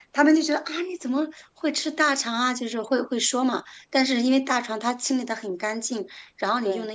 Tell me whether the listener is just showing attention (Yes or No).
Yes